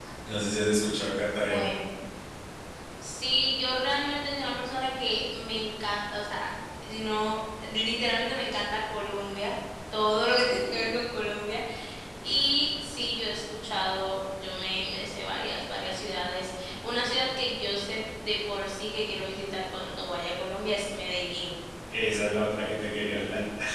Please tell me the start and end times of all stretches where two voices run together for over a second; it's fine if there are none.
none

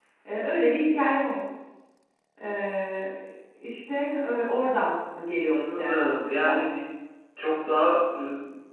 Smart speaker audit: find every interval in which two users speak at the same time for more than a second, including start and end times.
5.5-6.7

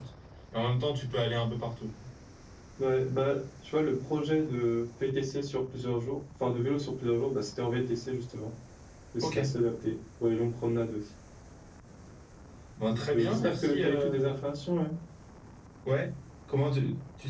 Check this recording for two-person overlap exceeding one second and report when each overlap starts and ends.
12.9-14.2

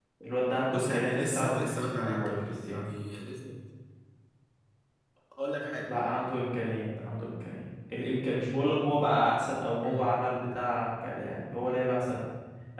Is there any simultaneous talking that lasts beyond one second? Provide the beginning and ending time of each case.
0.7-2.9

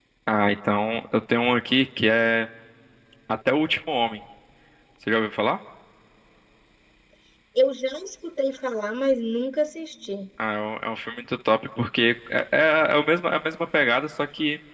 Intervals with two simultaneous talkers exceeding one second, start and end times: none

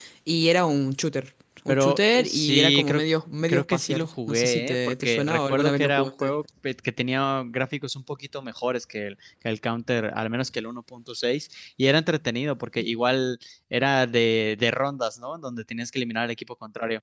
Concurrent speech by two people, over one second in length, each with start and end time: 1.7-3.0, 3.5-6.4

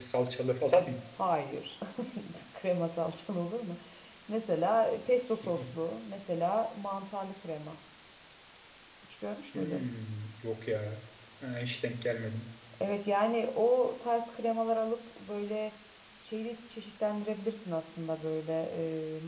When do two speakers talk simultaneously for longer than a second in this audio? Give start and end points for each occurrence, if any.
none

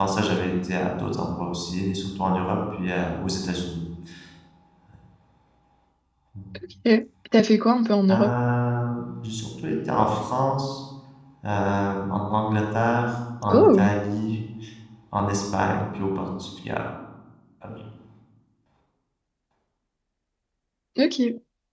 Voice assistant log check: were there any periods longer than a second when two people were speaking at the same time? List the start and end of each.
none

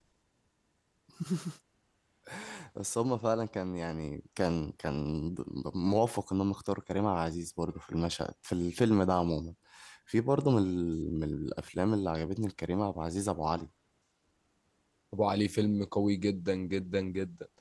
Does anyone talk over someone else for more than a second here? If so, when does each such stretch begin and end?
none

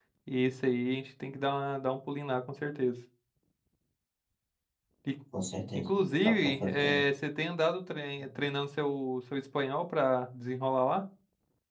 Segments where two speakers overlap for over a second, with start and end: 5.8-7.0

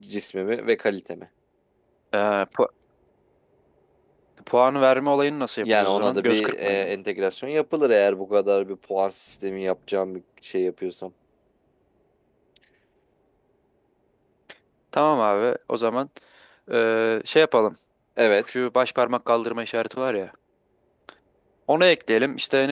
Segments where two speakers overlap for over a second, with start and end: 5.6-6.9

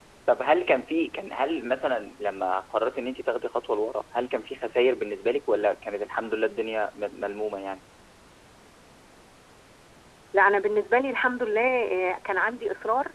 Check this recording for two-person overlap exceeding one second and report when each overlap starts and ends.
none

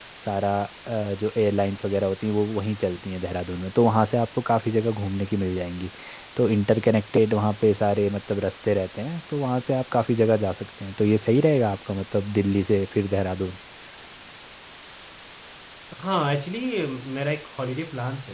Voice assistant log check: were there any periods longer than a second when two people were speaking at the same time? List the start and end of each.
none

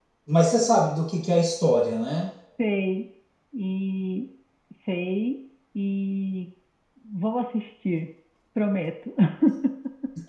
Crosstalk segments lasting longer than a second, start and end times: none

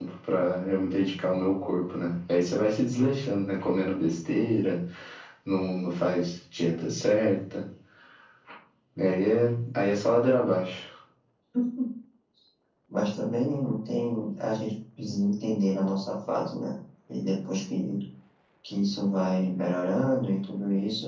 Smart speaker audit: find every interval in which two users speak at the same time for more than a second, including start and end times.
none

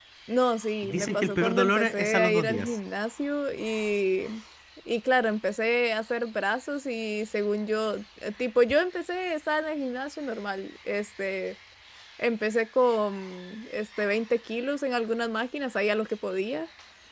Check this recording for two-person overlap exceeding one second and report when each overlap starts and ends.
0.9-2.8

